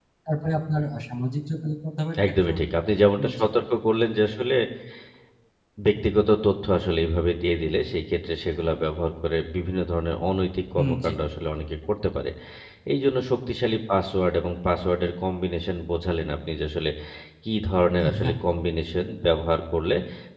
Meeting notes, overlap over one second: none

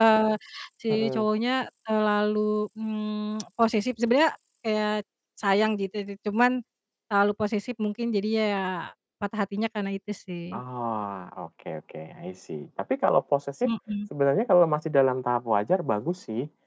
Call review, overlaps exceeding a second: none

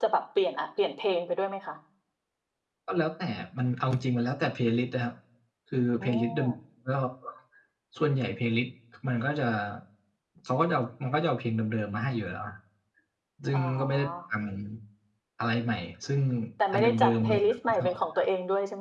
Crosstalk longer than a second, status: present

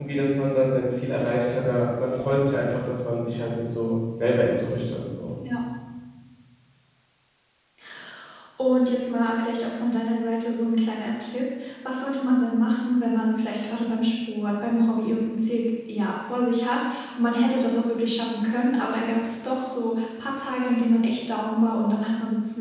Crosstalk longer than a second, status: none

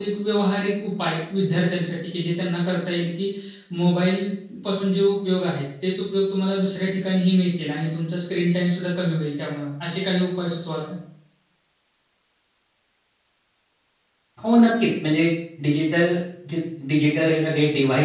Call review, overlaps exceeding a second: none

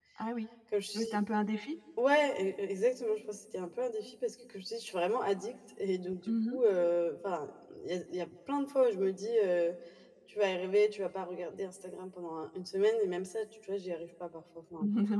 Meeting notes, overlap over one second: none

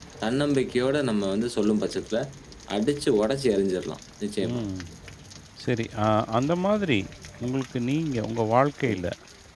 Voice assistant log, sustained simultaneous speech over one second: none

